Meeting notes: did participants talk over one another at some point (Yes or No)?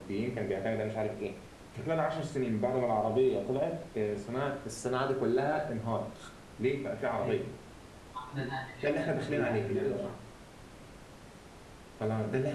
Yes